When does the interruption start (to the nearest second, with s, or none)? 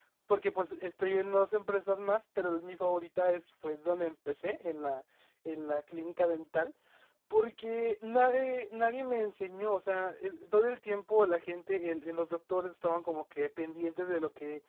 none